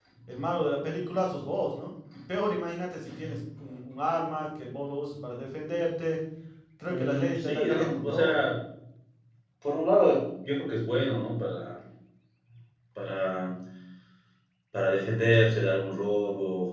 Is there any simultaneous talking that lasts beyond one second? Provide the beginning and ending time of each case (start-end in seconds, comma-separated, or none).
6.9-8.4